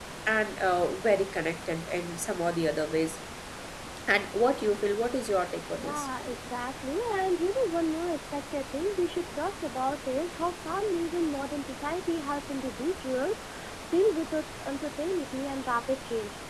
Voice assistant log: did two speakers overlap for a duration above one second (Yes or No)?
No